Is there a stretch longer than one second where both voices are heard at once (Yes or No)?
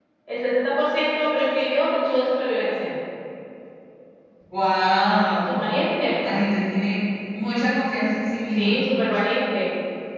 No